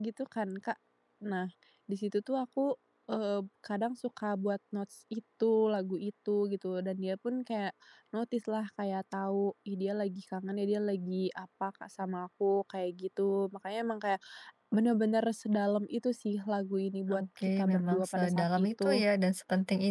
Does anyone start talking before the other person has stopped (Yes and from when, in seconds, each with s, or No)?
Yes, from 17.1 s